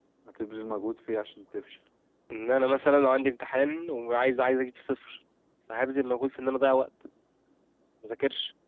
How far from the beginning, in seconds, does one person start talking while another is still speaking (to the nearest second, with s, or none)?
none